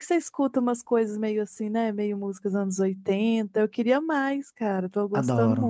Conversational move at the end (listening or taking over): taking over